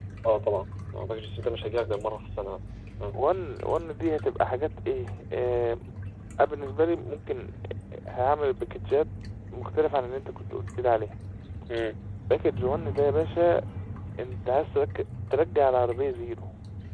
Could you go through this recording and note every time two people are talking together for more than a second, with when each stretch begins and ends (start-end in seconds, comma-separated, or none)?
none